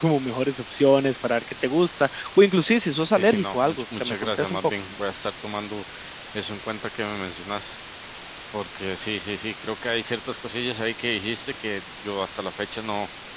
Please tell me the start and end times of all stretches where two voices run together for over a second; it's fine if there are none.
3.2-4.7

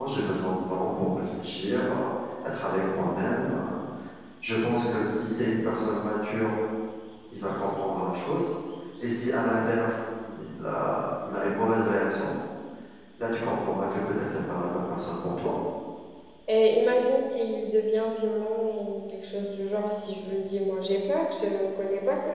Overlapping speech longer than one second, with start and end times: none

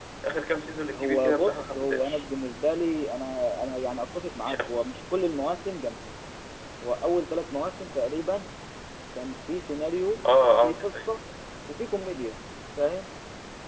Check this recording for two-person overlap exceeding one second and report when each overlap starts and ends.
0.9-2.2

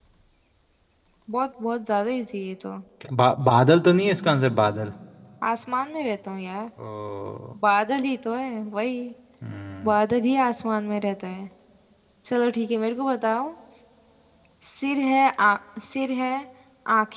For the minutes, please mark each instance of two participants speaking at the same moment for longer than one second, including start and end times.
none

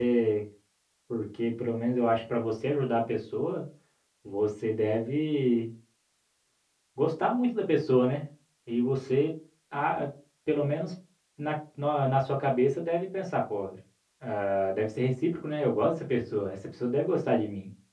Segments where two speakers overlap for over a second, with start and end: none

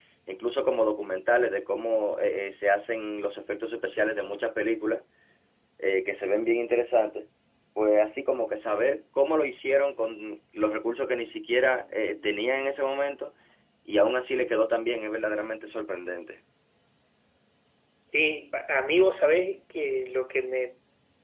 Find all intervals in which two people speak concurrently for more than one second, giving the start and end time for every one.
none

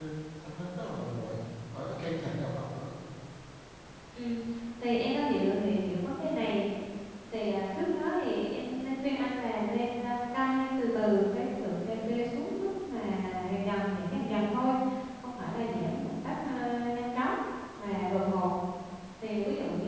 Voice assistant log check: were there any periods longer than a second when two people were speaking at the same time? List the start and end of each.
none

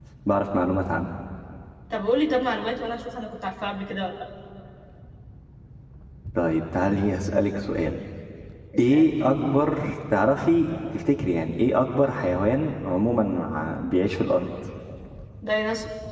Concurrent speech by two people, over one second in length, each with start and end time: none

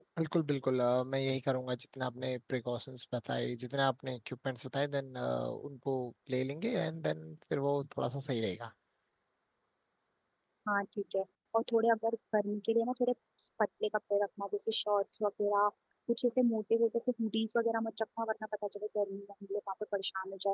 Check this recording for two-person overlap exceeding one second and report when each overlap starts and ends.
none

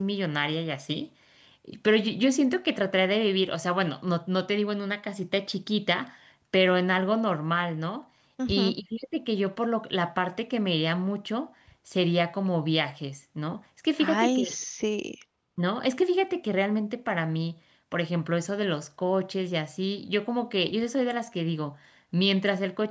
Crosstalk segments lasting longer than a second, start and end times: none

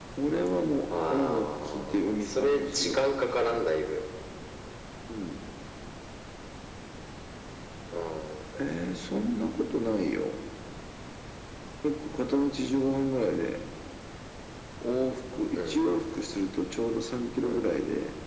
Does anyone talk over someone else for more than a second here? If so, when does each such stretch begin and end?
1.1-3.0

